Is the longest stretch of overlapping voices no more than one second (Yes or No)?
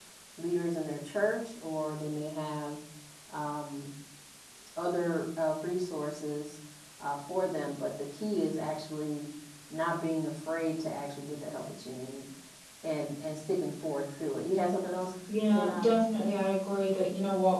Yes